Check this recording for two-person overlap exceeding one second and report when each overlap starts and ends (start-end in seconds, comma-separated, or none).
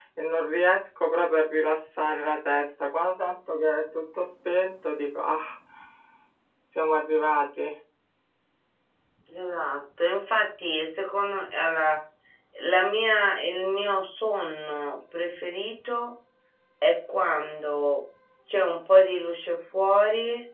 none